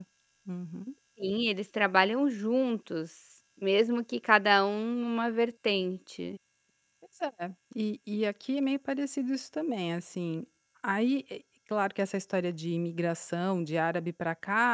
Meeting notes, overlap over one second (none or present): none